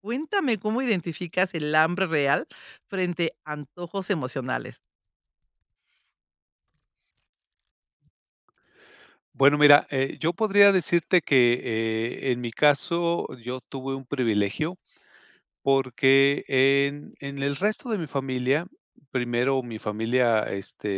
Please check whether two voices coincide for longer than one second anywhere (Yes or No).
No